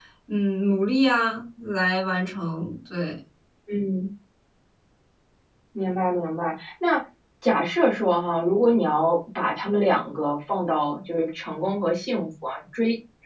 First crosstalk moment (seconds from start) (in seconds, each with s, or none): none